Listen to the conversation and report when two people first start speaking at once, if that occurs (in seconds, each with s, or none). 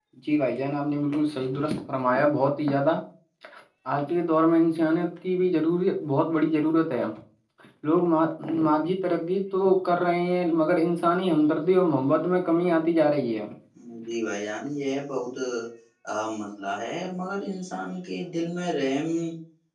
none